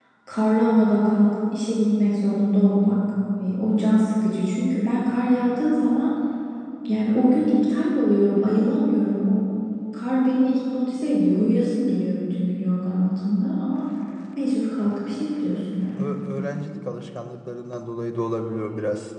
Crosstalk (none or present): none